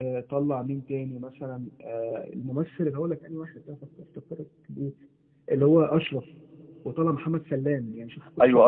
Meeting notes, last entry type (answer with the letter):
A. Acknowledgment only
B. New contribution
B